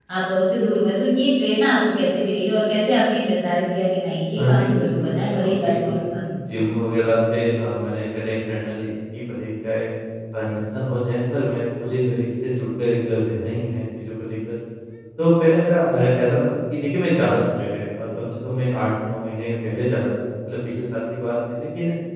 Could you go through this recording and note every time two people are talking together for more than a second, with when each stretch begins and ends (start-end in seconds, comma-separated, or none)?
4.3-6.3